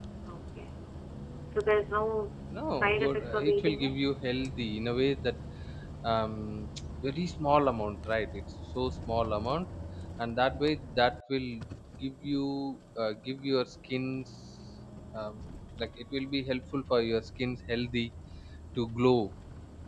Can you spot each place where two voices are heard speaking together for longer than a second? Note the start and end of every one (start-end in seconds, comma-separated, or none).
2.7-4.0